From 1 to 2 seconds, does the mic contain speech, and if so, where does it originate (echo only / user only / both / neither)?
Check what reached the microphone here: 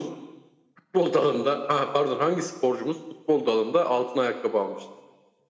echo only